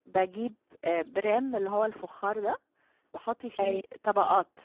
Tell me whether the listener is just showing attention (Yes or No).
Yes